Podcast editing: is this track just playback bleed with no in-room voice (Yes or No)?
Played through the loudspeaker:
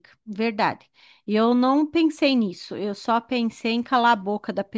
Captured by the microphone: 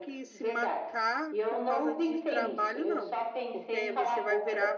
No